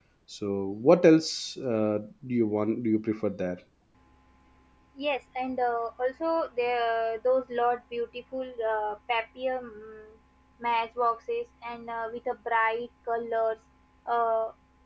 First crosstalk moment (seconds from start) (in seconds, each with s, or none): none